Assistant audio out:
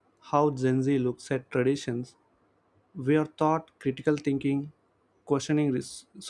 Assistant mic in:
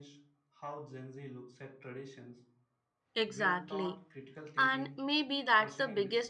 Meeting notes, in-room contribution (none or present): present